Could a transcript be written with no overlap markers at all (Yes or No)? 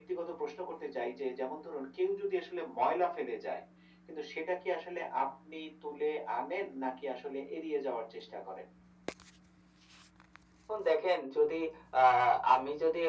Yes